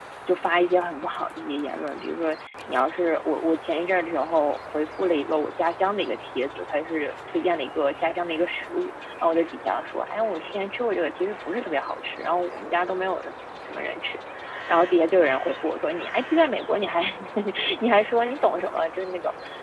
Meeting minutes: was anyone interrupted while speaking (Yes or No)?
No